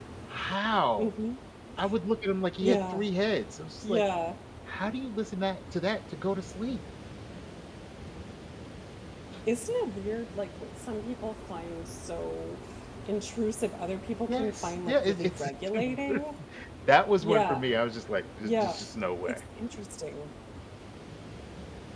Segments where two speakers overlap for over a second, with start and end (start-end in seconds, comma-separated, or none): 14.3-15.5